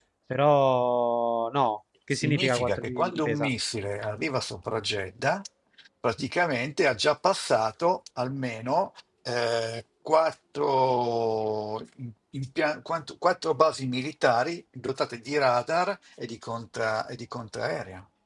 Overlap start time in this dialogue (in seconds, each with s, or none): 2.1 s